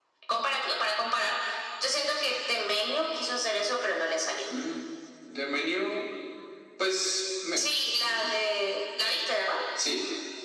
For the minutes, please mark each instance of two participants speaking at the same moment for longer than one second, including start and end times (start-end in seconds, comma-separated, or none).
none